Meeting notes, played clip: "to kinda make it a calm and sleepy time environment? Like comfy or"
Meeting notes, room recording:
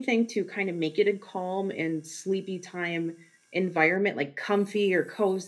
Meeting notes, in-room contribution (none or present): none